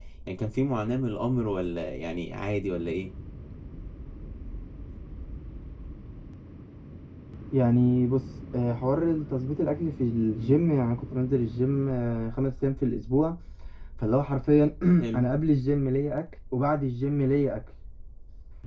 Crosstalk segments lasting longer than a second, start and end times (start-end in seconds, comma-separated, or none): none